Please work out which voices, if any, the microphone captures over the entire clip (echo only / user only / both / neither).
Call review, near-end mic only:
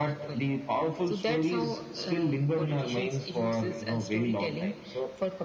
echo only